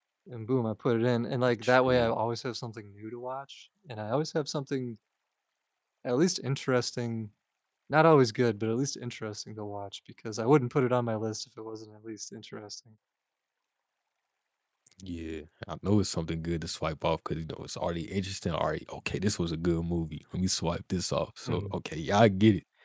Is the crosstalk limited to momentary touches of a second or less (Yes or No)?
Yes